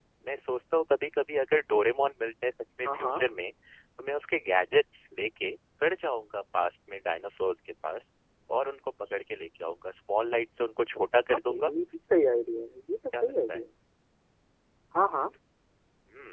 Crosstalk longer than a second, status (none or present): none